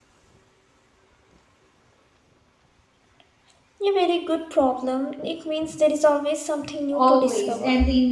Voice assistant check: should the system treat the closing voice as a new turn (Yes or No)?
Yes